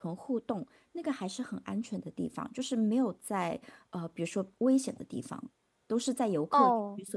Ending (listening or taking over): taking over